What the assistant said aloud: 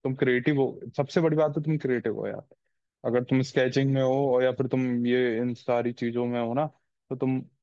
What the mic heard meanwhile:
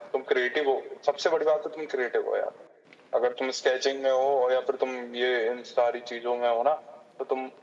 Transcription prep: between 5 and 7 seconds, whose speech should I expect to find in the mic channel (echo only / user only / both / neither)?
echo only